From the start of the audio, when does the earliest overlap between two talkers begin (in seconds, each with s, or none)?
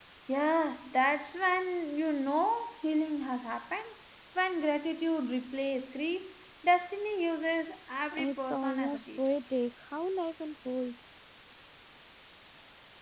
8.1 s